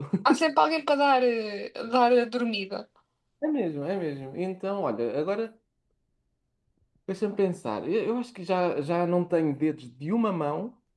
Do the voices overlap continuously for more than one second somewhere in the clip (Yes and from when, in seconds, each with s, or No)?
No